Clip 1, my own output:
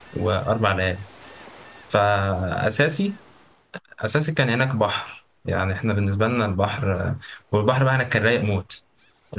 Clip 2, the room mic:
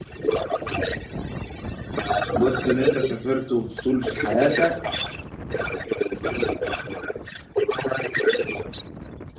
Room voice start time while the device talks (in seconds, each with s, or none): 2.4 s